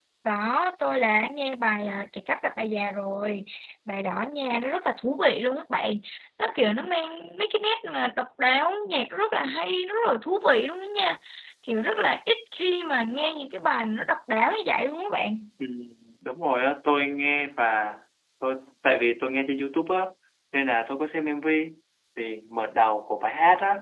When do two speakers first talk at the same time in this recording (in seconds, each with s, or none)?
none